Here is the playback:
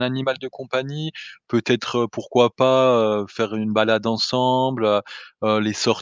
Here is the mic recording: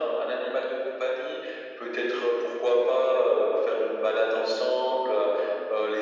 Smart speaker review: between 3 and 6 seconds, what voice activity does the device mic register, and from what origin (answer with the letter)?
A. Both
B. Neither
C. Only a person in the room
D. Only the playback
D